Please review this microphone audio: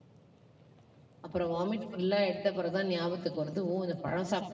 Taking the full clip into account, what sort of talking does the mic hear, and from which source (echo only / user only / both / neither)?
user only